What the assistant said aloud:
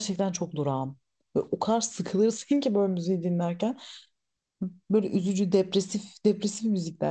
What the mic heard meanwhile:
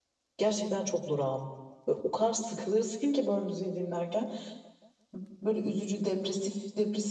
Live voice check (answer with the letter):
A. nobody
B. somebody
A